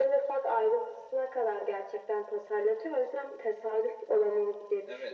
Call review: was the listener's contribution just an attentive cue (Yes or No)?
No